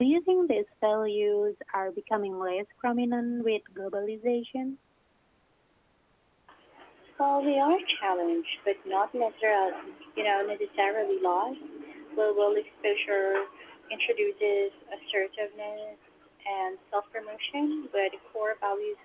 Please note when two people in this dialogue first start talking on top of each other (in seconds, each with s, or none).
none